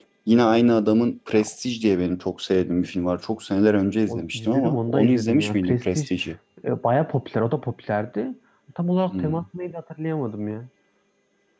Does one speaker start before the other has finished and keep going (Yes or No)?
Yes